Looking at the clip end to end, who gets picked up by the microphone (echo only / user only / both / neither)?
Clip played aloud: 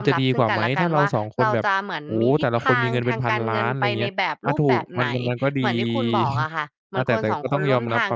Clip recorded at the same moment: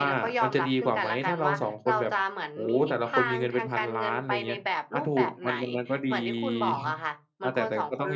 echo only